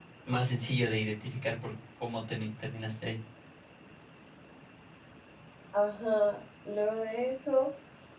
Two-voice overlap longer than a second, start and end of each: none

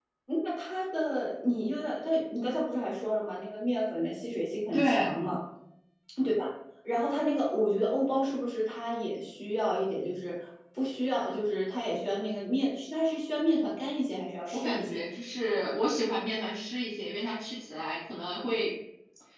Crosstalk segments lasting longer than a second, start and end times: none

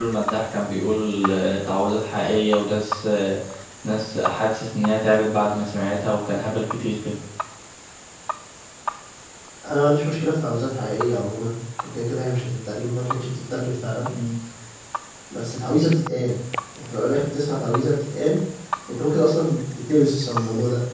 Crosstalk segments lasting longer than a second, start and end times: none

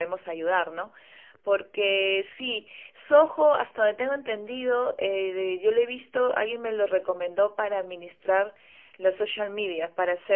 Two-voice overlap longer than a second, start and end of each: none

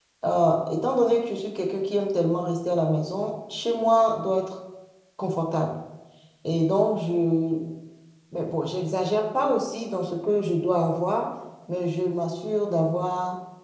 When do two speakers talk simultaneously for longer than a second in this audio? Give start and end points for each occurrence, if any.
none

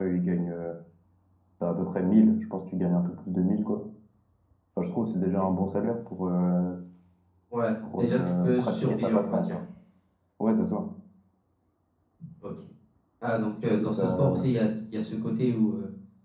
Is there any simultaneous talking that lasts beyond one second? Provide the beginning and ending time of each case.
8.0-9.6

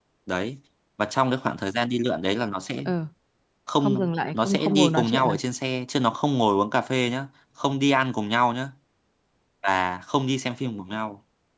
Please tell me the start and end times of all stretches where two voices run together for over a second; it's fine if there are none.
3.8-5.4

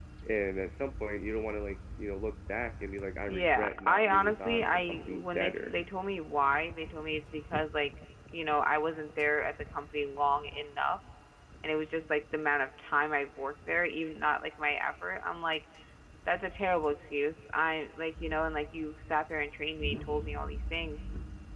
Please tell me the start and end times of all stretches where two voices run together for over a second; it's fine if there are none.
3.3-5.7

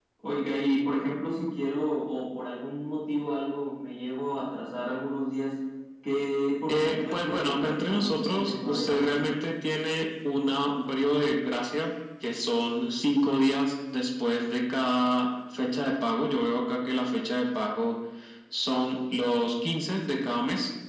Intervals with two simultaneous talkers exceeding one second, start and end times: 6.7-9.3

